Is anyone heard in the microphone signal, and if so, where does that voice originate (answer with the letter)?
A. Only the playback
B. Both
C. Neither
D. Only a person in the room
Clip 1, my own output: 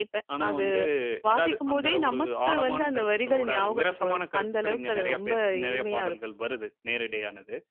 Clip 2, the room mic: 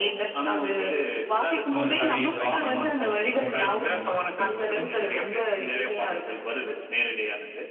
B